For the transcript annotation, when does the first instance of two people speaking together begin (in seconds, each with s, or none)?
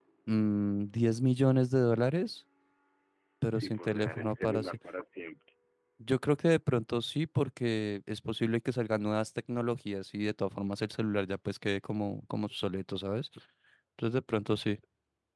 3.5 s